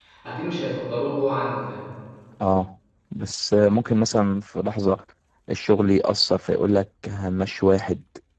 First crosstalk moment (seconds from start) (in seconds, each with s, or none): none